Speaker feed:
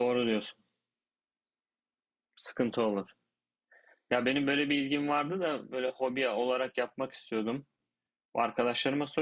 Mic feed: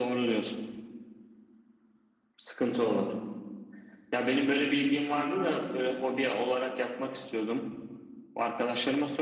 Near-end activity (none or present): none